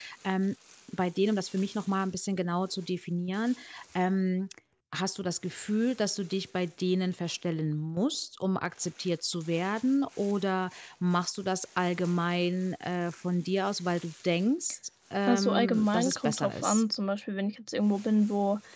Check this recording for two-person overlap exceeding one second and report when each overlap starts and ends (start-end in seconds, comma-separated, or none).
15.3-16.8